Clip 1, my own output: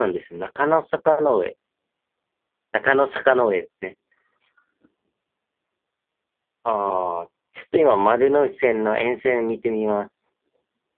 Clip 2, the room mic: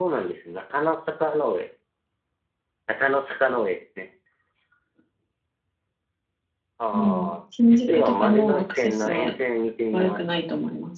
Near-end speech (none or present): present